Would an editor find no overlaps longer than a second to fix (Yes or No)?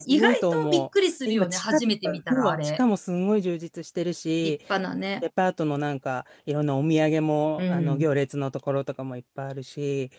No